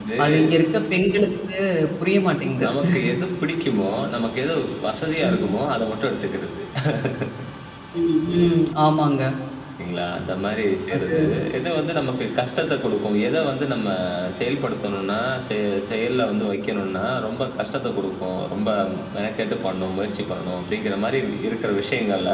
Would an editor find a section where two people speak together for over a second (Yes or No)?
No